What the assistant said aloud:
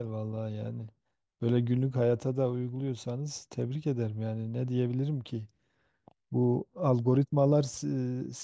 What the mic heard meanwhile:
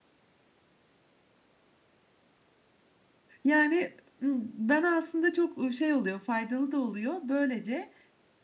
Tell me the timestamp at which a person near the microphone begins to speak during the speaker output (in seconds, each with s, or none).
3.4 s